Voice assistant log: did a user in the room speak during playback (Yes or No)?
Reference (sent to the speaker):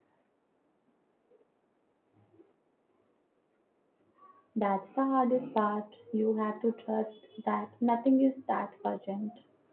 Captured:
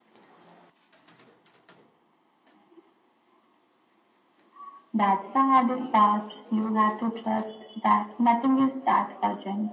No